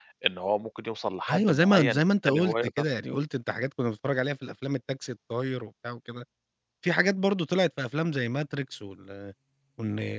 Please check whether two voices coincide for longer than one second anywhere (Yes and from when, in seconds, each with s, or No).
Yes, from 1.3 s